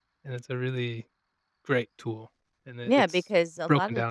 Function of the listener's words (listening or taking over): taking over